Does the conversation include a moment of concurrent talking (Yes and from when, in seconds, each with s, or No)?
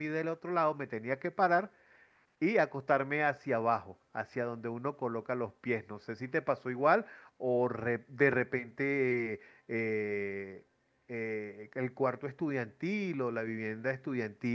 No